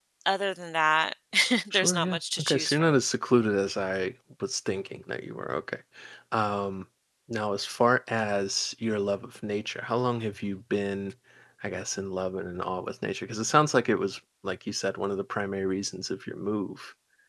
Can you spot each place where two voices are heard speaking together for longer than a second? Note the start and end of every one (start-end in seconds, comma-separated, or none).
1.7-3.0